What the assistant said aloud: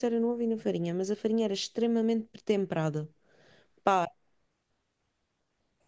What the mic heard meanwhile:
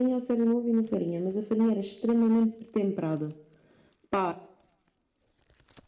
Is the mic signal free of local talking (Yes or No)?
Yes